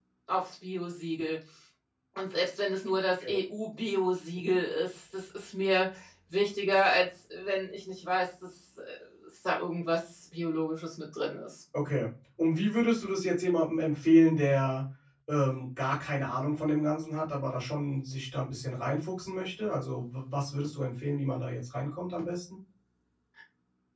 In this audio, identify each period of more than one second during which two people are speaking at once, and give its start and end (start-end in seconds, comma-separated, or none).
none